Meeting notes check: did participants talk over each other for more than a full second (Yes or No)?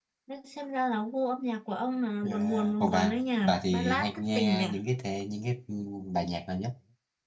Yes